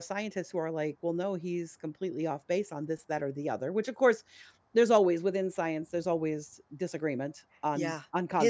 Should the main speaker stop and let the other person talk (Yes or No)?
Yes